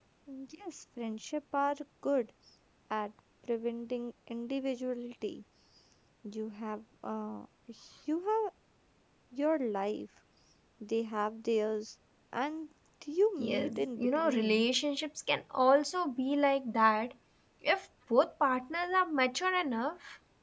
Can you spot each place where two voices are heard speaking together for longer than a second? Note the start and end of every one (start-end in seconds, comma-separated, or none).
13.4-14.7